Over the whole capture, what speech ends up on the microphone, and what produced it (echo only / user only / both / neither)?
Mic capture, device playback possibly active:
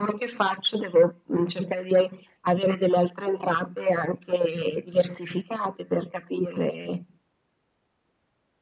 echo only